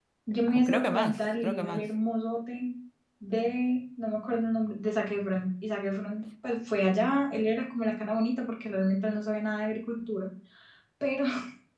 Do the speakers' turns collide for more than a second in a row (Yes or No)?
Yes